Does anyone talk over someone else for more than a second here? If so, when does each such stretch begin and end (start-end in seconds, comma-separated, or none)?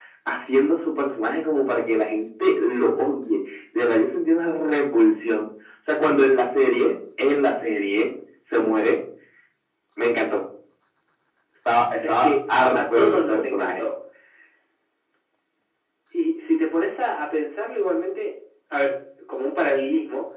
12.0-13.9